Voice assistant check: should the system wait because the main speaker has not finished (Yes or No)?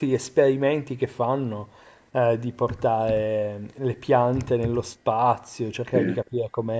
Yes